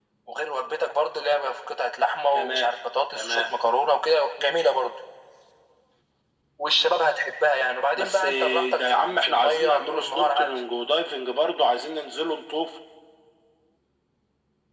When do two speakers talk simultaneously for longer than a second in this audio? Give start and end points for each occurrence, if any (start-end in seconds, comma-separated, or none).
8.0-10.6